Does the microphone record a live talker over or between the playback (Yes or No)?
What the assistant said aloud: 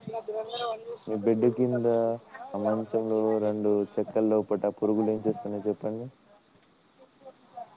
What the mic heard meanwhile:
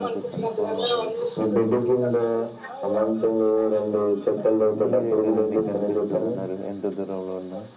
Yes